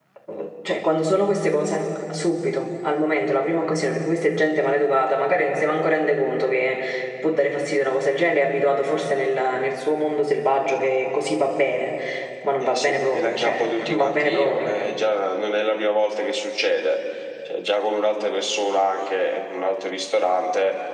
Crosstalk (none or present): present